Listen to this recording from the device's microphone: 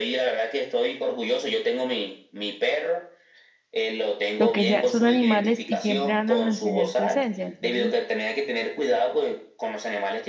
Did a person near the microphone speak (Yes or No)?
Yes